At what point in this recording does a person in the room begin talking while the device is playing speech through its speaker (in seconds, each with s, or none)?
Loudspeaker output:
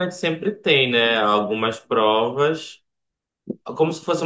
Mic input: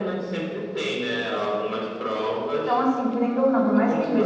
2.6 s